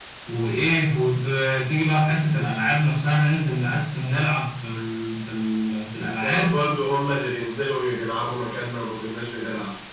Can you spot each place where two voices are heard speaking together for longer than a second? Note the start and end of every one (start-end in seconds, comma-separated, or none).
none